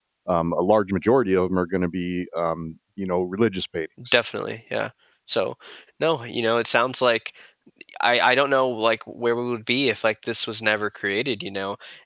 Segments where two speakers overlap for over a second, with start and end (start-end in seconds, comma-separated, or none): none